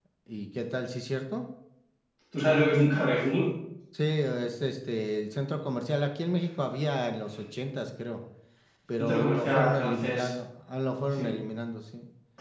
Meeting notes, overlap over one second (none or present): present